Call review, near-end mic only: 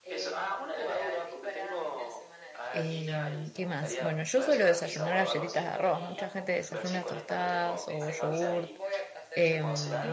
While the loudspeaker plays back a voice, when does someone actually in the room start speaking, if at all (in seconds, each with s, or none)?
2.7 s